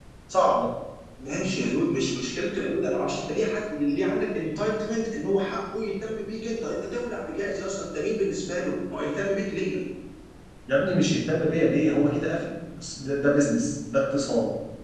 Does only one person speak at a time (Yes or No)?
Yes